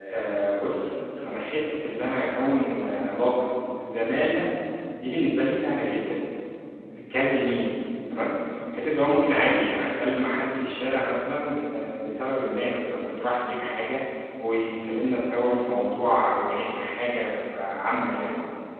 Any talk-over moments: Yes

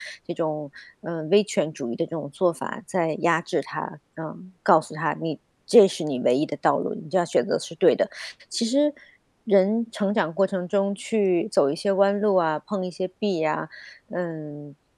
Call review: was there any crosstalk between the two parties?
No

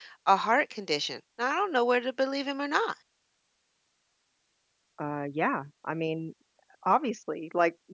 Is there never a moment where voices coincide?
Yes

